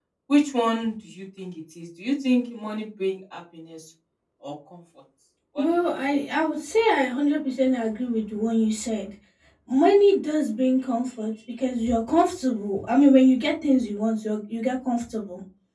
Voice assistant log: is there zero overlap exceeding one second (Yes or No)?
Yes